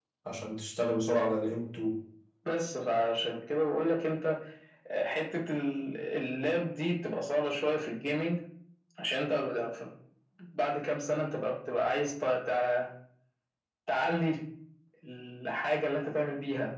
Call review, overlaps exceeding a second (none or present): none